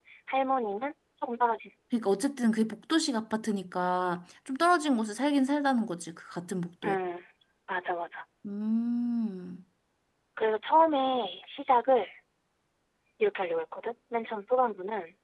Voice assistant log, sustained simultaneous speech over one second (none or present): none